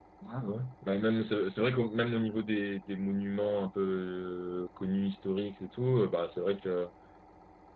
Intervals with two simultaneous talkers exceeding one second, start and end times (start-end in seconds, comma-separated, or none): none